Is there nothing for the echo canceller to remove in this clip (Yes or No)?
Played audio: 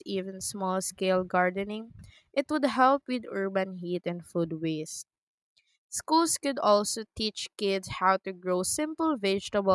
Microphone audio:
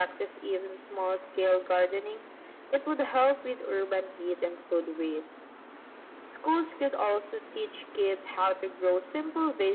No